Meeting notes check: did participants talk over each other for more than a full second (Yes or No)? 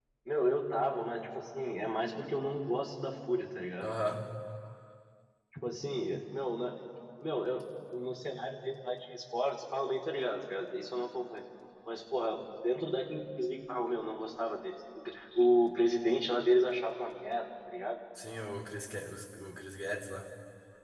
No